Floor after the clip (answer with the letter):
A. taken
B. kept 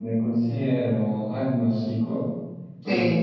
B